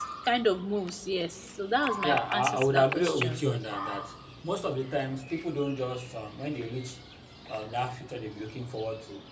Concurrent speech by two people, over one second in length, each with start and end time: 2.0-3.4

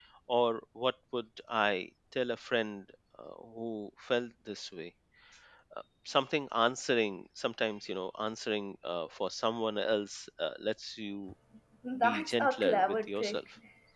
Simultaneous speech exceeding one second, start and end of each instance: 12.0-13.4

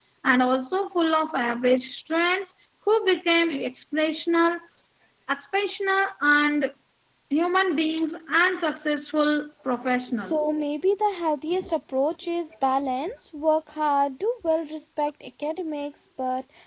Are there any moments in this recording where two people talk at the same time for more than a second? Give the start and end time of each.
none

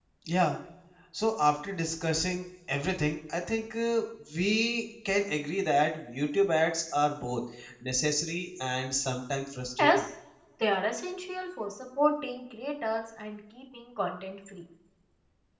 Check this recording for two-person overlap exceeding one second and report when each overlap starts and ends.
none

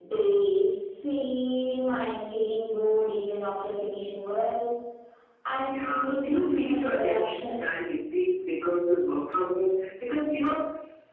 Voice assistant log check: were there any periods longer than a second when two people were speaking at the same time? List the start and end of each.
5.7-7.8

